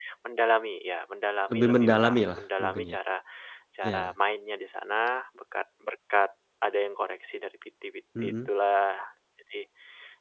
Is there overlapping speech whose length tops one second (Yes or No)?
Yes